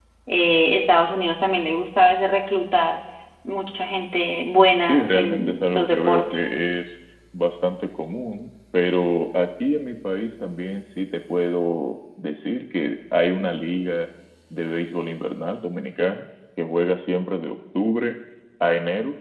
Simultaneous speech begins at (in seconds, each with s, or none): 4.8 s